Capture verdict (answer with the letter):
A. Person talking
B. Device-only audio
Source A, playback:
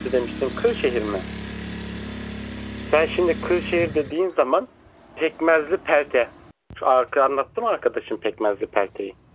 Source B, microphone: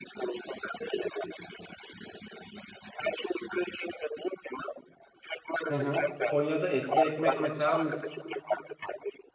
A